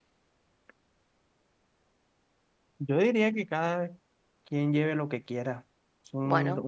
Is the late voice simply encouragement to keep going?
Yes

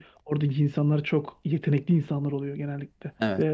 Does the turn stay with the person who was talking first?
No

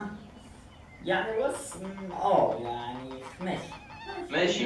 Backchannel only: No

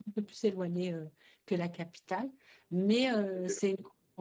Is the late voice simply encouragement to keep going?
Yes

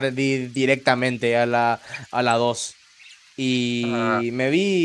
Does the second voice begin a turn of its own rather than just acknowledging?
No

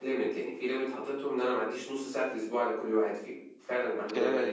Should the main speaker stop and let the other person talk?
Yes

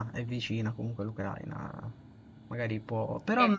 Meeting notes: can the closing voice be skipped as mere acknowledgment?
Yes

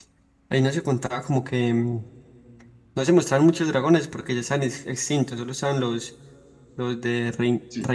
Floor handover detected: No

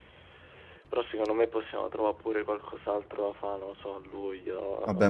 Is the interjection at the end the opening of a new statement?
Yes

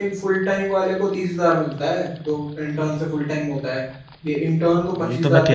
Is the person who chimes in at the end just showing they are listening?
No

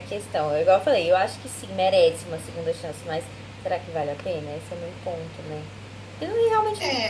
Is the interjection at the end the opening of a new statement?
Yes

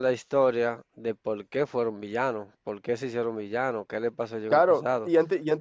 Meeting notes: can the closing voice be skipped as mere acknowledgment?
No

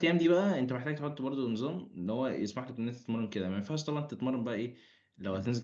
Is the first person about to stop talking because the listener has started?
No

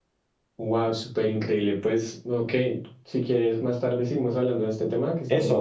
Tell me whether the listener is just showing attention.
No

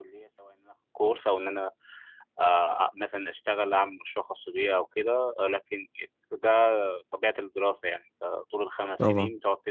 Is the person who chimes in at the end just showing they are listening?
Yes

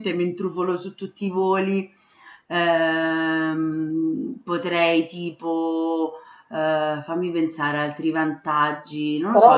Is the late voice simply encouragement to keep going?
No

